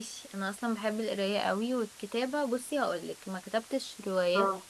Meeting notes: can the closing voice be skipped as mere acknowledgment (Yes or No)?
Yes